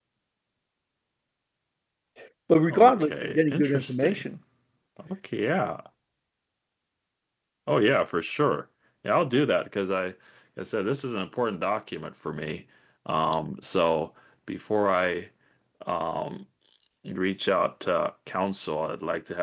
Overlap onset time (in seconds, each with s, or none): 2.7 s